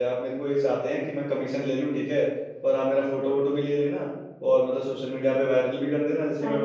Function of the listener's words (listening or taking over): taking over